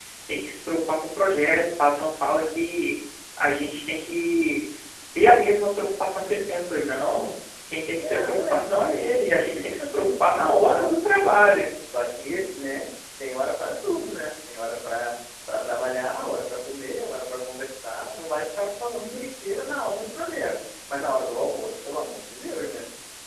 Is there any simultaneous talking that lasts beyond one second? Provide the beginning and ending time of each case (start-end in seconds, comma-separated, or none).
8.0-11.5